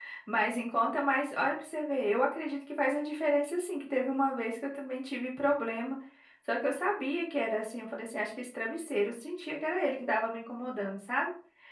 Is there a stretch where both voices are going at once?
No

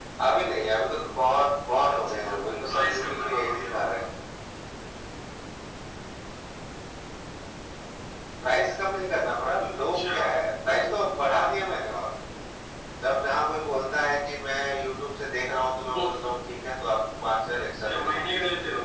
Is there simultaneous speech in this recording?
Yes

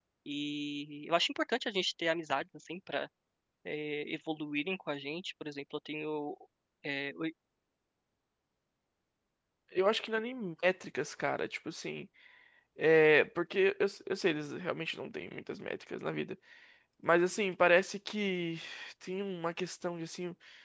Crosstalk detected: No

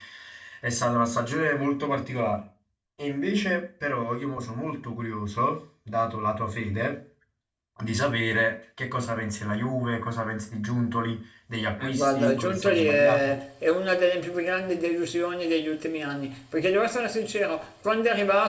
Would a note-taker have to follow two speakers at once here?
Yes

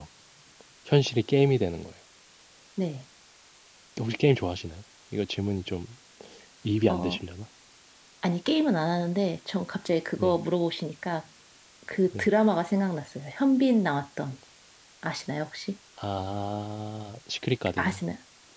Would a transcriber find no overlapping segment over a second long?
Yes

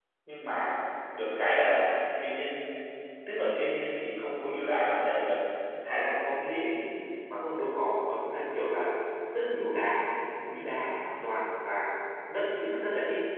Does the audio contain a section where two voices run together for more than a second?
No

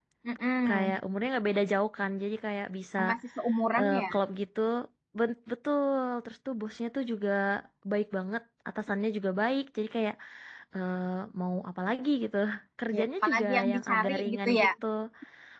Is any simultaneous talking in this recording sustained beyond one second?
Yes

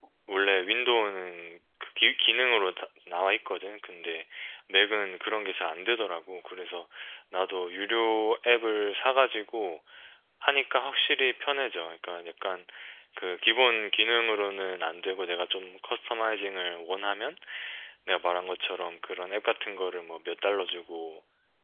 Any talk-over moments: No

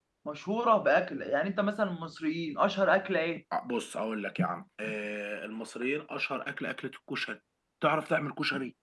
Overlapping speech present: No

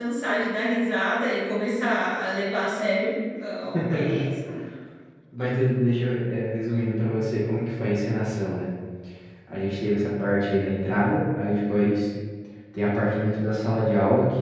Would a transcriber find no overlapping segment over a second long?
Yes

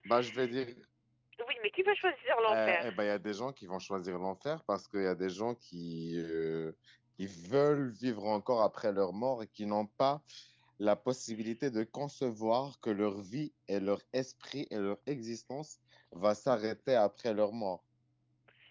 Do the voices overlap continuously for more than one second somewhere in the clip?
No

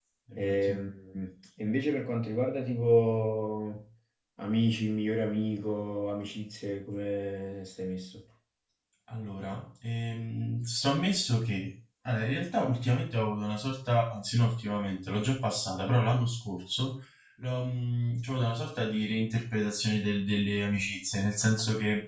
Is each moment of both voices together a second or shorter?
Yes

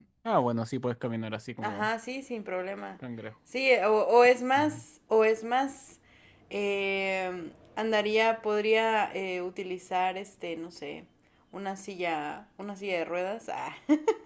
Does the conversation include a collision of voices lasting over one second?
No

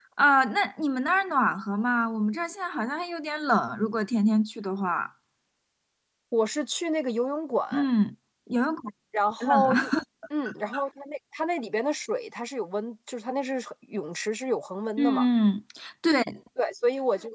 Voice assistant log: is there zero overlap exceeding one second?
Yes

